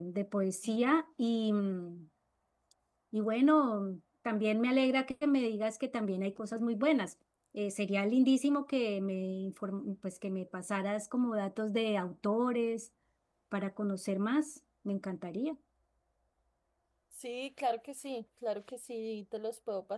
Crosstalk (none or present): none